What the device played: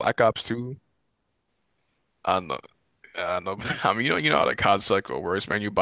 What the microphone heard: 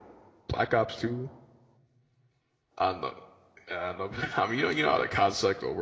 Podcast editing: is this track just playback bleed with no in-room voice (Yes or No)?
Yes